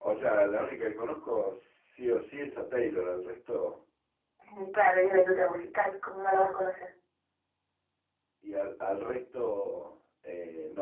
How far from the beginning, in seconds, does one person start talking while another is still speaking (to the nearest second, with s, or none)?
none